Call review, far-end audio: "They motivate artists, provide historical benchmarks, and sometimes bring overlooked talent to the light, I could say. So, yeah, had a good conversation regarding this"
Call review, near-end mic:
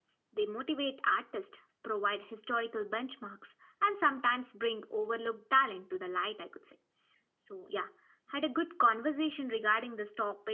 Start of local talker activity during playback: none

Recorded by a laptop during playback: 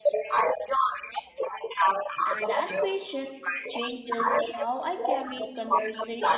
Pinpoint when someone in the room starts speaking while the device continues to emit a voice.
2.2 s

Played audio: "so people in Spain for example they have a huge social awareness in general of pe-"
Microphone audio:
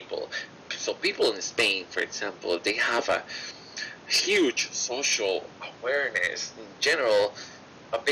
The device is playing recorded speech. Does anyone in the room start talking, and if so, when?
none

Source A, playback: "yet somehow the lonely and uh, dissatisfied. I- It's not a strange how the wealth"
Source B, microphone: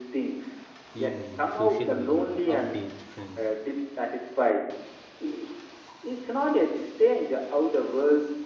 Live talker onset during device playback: 0.9 s

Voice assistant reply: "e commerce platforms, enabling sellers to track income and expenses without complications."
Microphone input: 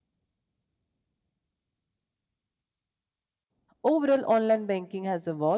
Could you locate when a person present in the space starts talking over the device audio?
3.8 s

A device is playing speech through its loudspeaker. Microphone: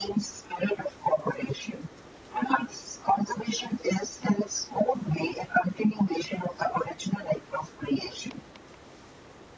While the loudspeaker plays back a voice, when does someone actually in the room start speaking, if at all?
none

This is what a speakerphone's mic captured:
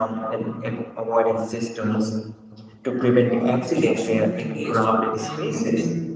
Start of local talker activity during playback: 3.2 s

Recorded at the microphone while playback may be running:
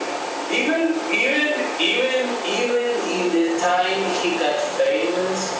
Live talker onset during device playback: none

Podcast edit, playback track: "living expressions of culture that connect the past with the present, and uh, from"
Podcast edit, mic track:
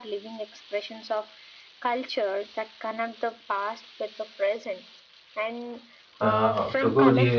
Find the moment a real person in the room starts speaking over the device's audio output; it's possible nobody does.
6.2 s

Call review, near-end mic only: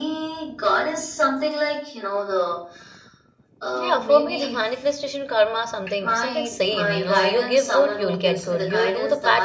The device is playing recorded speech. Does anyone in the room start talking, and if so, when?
3.8 s

